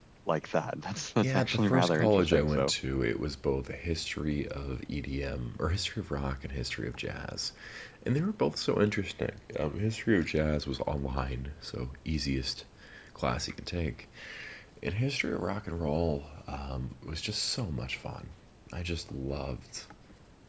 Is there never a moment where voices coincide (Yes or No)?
No